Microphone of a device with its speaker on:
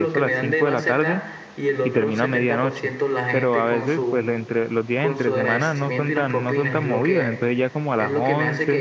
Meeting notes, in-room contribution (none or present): present